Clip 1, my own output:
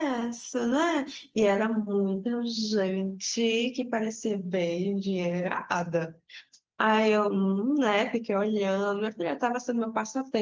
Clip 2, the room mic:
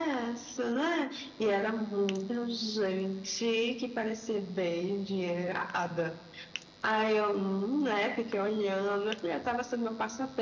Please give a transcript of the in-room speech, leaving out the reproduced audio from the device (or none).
none